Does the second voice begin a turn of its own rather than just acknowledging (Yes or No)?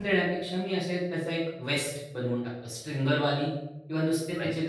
No